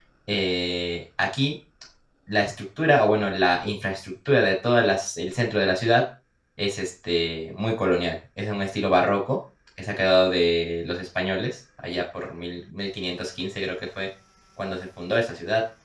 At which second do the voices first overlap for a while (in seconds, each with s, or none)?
none